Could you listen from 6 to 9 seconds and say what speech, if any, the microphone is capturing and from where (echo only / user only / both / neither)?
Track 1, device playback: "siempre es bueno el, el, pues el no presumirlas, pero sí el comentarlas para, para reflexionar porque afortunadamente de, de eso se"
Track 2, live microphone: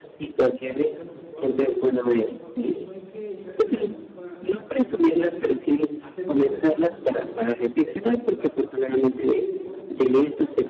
both